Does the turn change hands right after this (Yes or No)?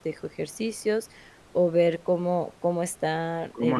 Yes